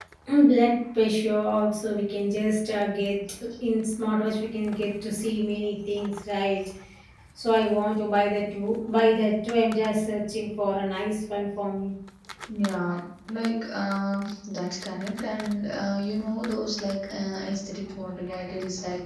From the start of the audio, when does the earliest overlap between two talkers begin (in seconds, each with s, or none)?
none